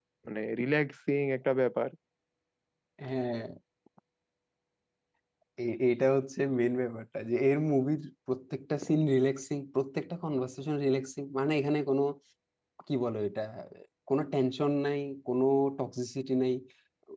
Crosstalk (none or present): none